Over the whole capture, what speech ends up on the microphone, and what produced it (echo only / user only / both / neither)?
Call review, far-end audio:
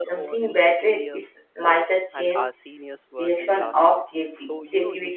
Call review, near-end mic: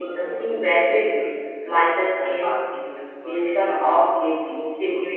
echo only